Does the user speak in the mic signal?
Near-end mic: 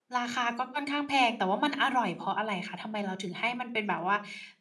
Yes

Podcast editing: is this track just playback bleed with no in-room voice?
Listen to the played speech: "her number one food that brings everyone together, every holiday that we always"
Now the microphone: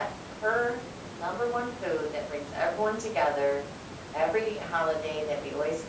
Yes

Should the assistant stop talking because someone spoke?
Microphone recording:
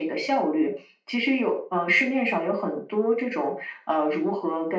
No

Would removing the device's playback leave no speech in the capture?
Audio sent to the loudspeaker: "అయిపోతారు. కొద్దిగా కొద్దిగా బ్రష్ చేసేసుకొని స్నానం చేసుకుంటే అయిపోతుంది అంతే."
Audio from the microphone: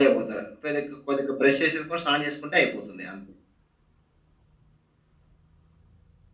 Yes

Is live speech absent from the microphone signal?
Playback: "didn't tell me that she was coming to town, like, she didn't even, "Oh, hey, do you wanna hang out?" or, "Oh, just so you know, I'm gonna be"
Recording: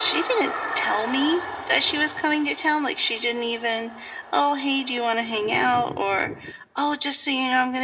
Yes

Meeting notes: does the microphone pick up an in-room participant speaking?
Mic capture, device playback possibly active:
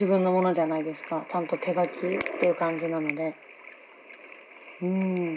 No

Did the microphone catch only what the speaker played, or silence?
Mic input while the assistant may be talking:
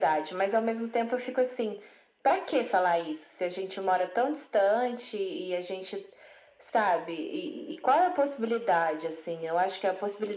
Yes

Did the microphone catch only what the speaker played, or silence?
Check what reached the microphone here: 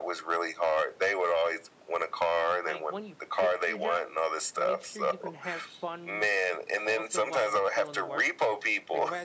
No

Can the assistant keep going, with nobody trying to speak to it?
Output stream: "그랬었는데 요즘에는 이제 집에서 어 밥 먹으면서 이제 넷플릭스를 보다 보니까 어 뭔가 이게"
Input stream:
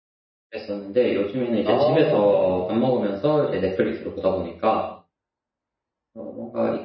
No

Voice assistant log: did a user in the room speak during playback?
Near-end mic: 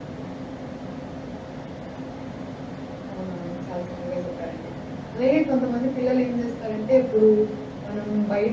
Yes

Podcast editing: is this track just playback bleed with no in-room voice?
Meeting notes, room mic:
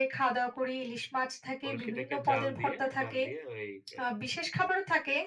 No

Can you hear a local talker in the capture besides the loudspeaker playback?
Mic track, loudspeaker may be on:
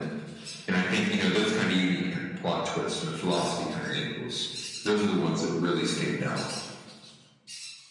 No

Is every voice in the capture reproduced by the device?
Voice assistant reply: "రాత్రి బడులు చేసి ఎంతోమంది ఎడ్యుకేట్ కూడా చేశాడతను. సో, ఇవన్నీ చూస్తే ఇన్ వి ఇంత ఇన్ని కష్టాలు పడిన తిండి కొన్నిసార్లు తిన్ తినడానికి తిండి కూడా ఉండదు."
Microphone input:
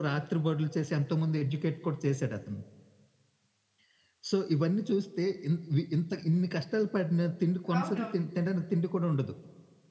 No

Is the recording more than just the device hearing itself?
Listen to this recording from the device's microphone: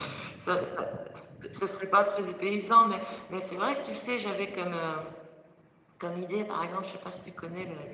No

